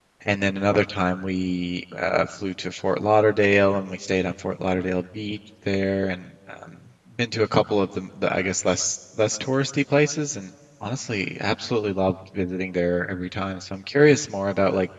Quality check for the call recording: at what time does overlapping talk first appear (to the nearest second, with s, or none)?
none